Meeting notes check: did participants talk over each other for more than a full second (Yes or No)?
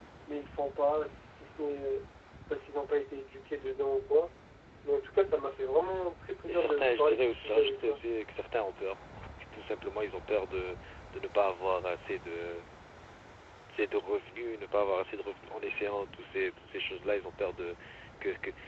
Yes